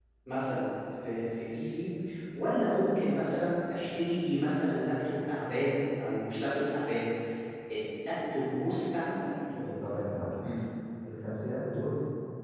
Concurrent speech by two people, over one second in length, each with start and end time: none

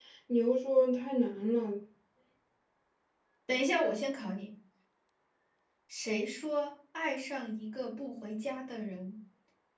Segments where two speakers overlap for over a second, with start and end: none

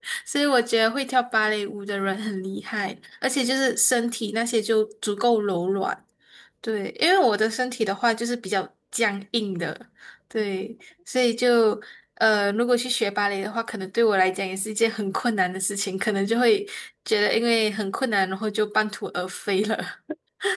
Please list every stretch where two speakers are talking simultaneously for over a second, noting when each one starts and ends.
none

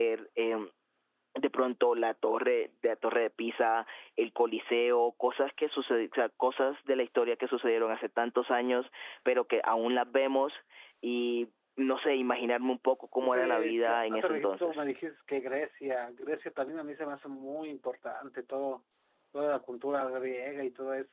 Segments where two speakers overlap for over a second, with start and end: 13.2-14.8

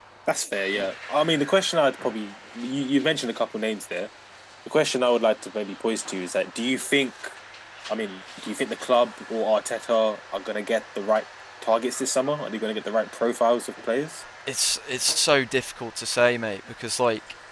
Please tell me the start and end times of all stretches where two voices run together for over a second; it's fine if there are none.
none

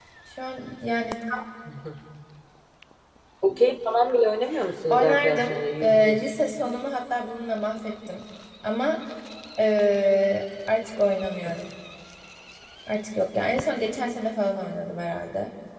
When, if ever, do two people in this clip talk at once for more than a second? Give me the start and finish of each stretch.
4.9-6.3

